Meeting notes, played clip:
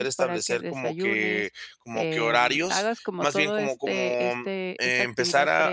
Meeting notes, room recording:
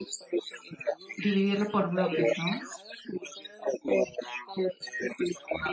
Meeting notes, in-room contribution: present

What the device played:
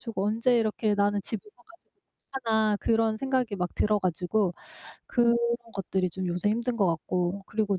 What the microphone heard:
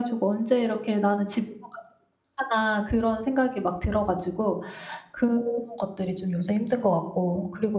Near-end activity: none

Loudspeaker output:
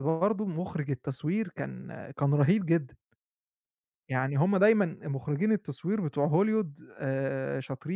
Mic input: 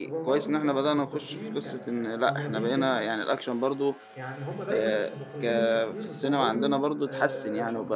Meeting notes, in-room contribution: present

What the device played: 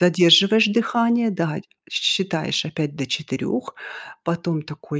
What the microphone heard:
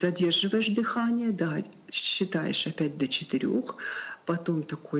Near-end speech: none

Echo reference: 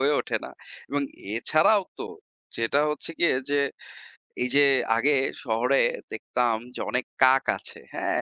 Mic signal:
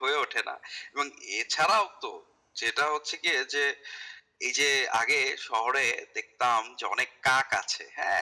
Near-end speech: none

